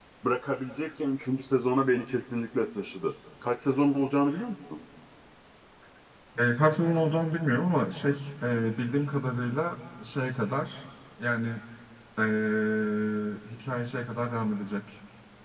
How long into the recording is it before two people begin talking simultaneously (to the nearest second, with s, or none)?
none